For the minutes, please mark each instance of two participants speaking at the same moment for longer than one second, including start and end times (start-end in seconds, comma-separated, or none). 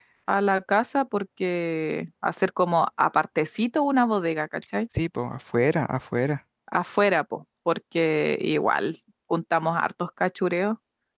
none